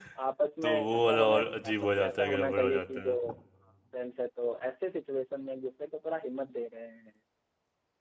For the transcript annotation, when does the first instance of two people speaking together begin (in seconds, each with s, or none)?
0.6 s